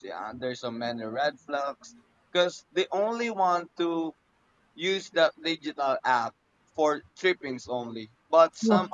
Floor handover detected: No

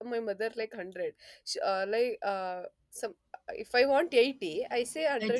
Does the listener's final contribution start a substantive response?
No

